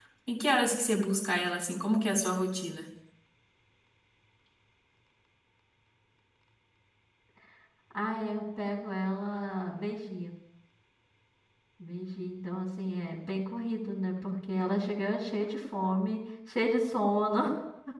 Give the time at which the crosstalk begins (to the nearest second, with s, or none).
none